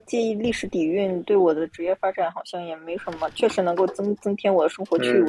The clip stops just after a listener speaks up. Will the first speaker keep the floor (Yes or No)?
No